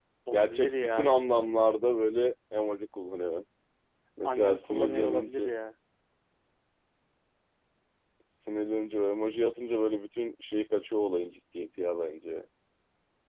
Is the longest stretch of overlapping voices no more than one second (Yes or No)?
No